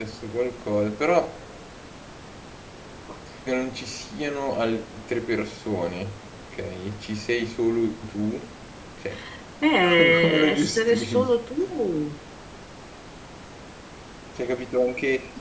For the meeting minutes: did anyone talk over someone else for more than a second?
Yes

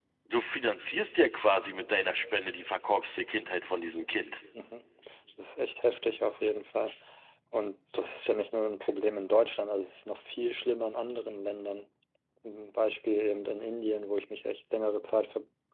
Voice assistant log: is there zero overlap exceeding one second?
Yes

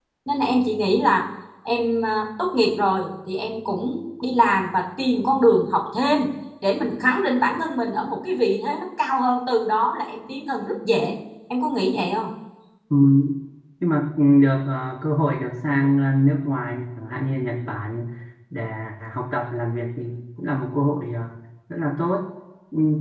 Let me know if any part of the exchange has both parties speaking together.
No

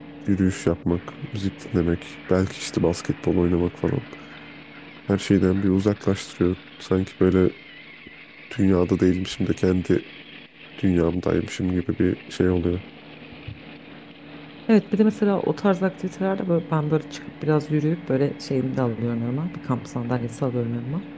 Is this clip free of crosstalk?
Yes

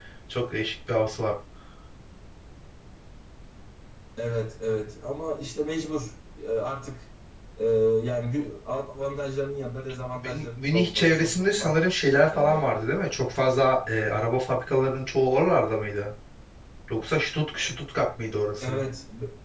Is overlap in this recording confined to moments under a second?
No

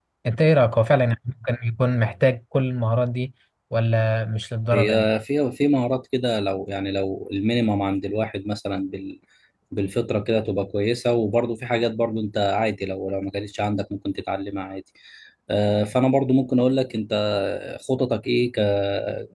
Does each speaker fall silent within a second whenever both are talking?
Yes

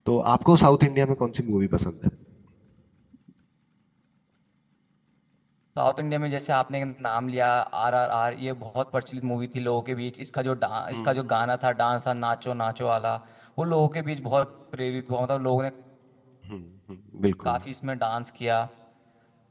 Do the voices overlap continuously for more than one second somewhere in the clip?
No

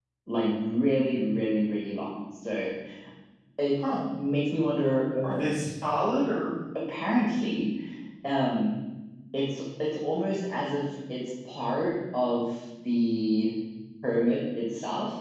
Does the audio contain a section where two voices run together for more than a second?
No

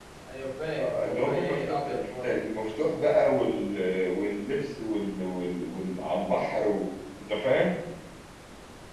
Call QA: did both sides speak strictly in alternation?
No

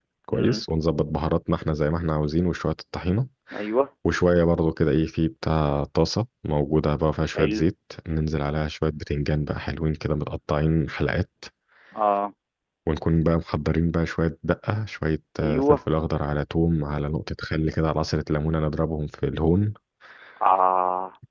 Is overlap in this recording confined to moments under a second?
Yes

